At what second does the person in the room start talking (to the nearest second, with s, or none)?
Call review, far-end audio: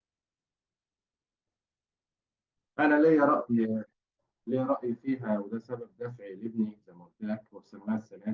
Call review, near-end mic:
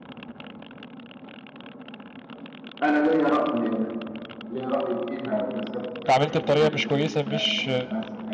6 s